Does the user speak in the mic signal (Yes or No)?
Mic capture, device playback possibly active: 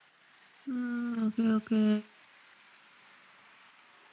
Yes